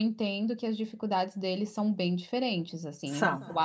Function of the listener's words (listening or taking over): listening